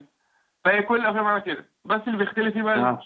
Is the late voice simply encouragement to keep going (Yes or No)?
Yes